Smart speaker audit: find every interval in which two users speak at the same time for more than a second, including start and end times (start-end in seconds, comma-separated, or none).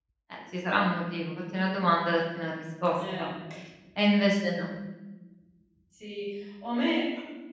none